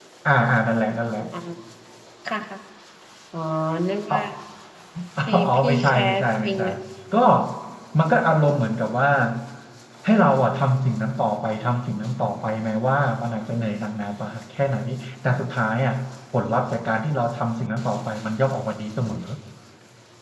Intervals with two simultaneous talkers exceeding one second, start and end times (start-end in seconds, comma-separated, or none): 5.4-6.6